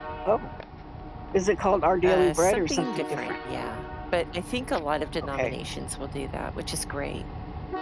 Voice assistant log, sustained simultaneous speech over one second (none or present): present